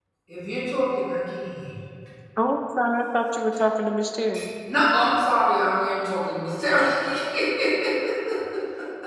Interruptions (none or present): none